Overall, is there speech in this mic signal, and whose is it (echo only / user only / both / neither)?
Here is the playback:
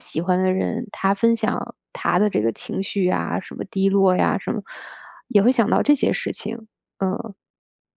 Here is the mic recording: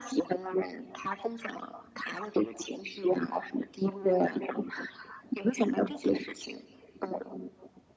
echo only